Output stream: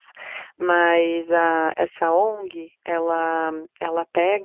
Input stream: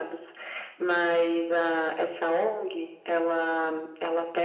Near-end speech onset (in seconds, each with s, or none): none